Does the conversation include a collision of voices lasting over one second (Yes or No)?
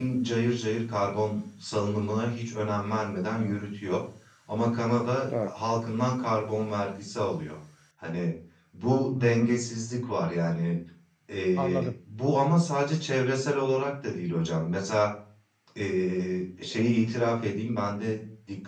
No